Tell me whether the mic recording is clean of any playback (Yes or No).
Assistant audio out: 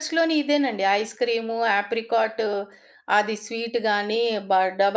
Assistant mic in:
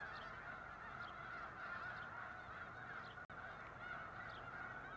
Yes